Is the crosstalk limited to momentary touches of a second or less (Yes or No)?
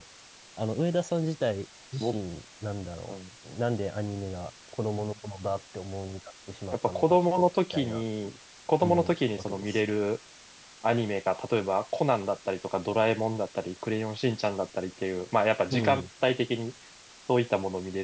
No